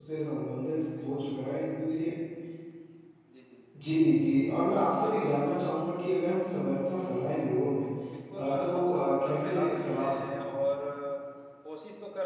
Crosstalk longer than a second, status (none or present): present